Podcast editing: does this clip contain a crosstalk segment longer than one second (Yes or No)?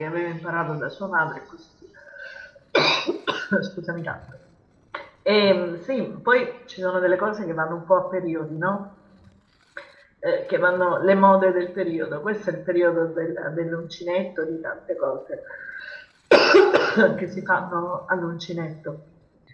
No